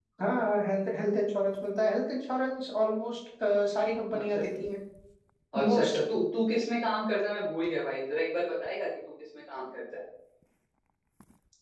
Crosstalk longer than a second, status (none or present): none